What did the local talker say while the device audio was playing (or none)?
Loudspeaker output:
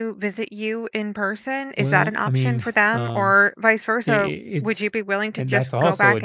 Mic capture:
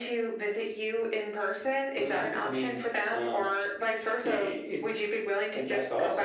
none